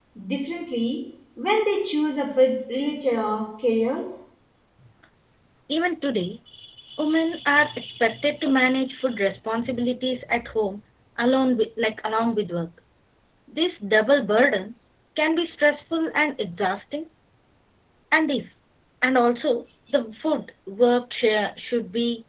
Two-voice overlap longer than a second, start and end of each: none

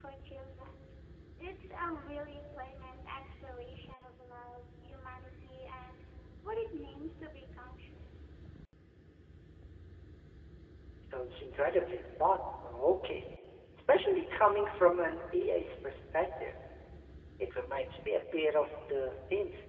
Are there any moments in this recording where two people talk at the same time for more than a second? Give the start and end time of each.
none

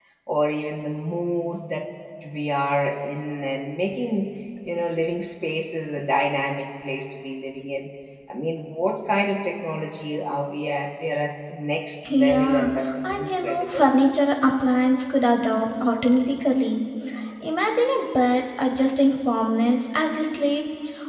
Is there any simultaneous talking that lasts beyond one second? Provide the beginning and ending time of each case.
12.1-13.9

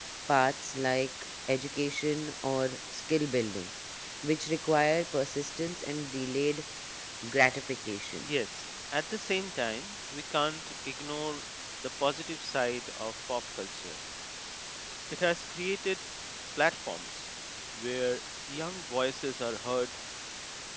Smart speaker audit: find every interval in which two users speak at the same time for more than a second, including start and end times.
none

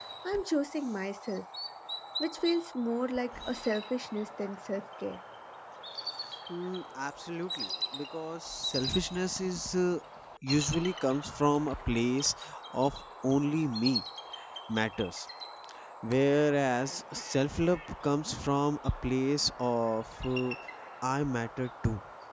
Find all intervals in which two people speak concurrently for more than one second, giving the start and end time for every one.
none

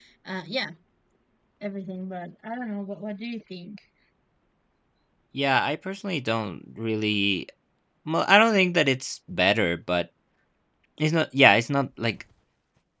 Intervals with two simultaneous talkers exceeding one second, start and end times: none

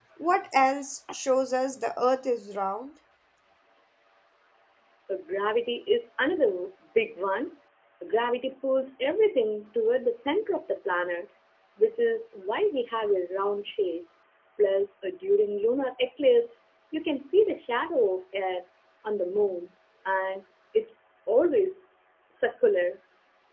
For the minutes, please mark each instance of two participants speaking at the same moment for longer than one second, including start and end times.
none

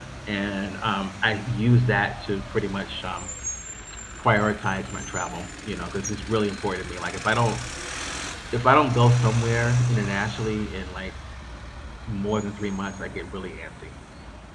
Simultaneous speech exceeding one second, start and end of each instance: none

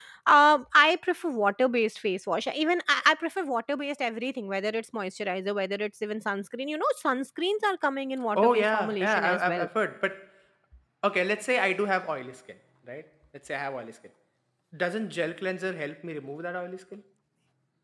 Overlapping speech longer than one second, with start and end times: 8.4-9.7

